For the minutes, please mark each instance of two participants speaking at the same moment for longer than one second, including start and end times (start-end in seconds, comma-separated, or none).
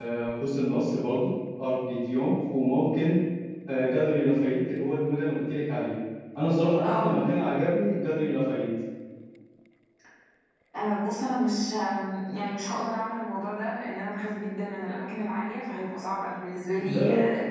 none